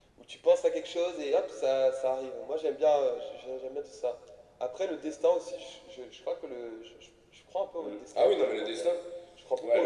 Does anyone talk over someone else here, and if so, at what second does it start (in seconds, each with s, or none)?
7.8 s